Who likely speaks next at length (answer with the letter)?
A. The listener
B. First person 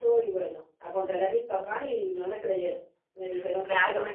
A